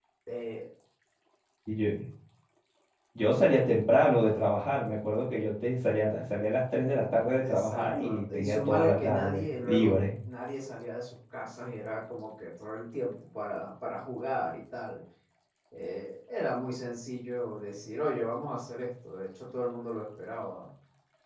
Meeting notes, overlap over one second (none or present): present